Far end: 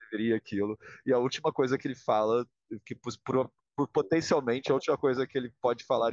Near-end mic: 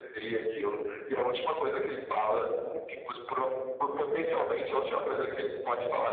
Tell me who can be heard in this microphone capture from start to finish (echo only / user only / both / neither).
echo only